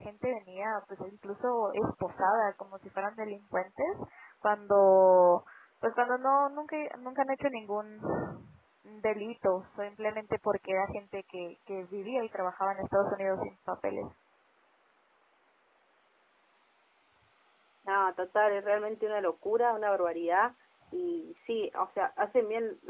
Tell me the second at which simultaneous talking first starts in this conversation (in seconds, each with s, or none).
none